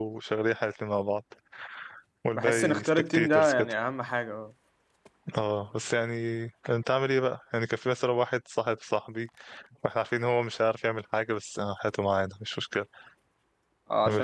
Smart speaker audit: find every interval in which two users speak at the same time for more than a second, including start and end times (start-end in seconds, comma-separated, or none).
2.3-3.7